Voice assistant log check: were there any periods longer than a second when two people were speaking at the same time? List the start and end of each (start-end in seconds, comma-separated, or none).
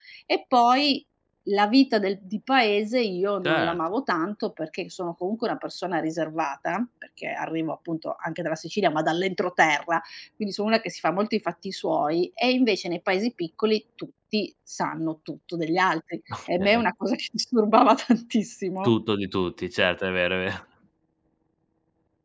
none